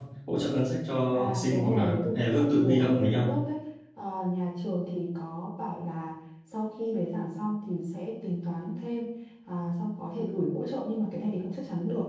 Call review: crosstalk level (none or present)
present